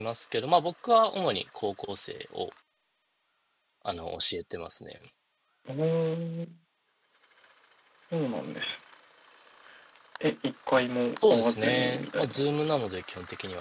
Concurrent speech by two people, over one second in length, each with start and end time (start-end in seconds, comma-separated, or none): 11.1-12.4